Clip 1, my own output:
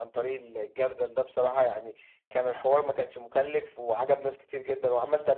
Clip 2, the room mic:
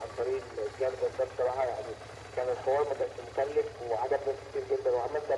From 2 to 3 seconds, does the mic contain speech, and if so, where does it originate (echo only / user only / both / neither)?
echo only